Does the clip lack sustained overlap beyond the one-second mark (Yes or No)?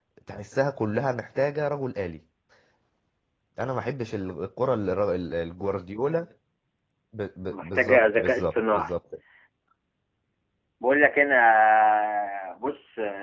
No